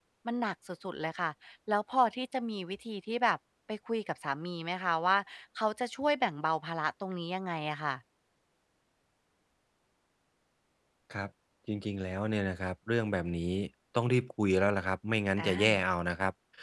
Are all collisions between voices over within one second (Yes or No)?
Yes